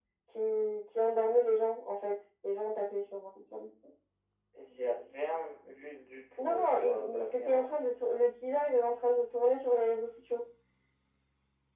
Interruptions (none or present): present